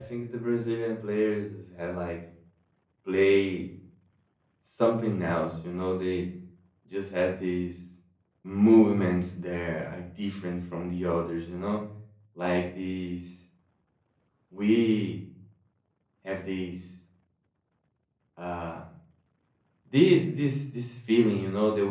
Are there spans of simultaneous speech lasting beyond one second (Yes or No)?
No